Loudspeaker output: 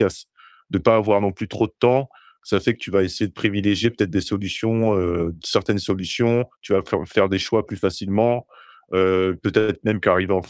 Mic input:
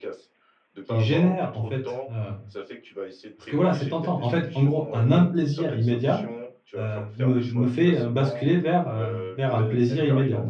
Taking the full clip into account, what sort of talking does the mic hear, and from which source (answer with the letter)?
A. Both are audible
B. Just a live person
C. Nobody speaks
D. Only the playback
A